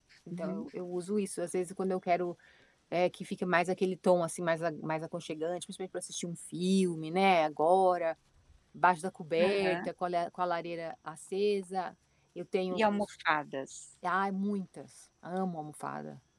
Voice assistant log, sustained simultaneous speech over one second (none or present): none